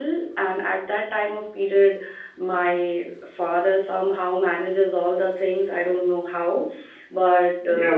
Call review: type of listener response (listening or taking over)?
taking over